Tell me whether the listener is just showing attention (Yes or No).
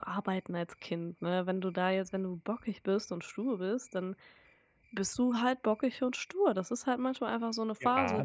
No